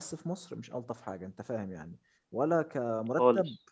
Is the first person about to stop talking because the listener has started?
No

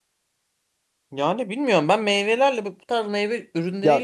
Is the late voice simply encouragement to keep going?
No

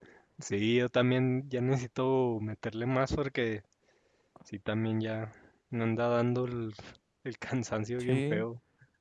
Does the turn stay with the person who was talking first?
No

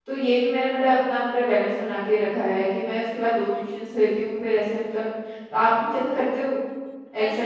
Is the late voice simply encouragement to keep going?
No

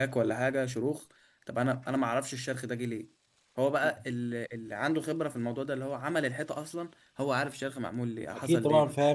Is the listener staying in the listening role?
No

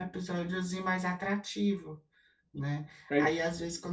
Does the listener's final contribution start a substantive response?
No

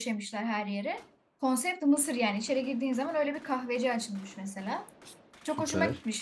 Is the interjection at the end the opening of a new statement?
No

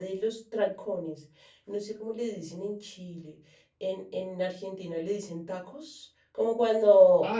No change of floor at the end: Yes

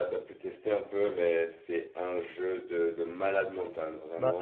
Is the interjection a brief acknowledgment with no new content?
No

